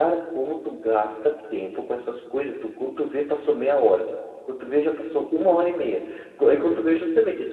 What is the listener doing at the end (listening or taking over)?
listening